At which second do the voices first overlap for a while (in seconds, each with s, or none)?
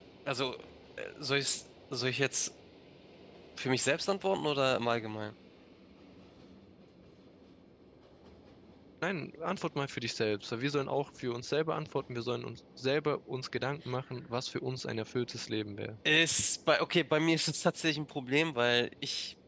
none